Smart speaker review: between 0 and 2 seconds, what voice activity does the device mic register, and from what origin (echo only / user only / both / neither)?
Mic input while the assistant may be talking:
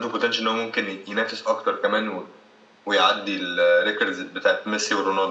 echo only